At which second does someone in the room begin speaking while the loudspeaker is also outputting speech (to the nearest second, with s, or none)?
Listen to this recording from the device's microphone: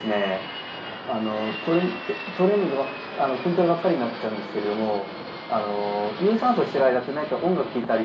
none